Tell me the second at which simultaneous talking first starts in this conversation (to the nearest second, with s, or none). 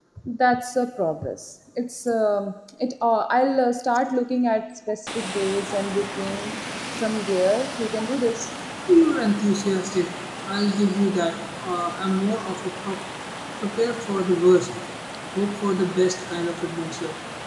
none